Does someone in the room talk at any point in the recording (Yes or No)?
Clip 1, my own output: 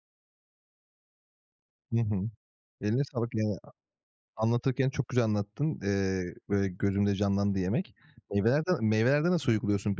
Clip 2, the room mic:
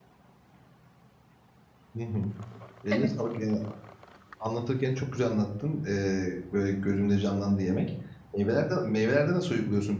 Yes